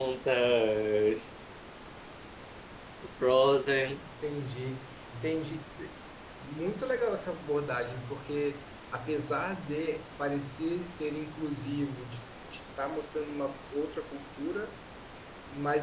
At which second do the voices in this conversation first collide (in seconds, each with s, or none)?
none